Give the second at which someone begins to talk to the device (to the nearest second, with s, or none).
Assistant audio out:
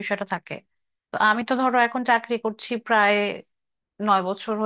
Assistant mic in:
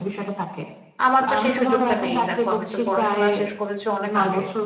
1 s